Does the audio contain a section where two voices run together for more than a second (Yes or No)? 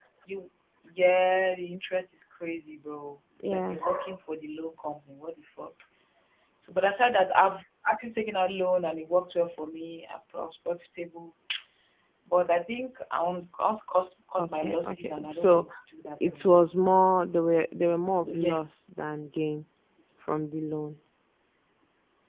Yes